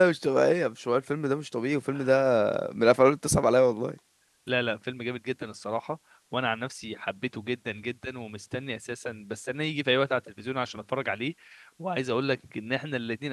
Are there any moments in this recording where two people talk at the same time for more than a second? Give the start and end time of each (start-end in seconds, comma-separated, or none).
none